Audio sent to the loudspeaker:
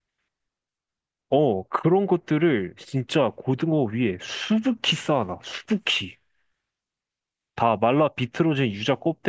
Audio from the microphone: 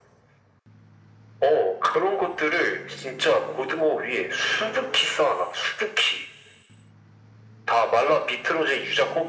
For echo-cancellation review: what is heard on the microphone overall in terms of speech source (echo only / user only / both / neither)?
echo only